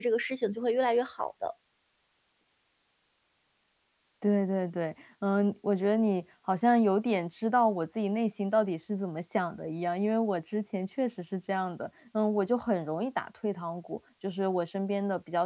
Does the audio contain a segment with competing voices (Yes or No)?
No